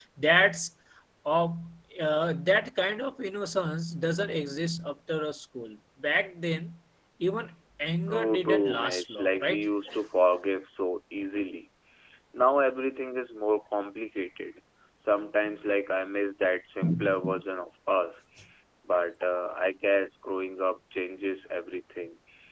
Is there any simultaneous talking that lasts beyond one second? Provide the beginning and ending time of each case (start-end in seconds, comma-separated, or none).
8.1-9.7